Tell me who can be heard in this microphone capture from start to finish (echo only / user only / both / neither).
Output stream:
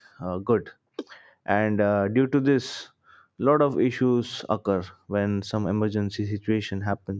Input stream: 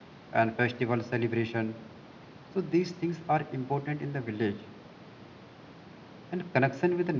user only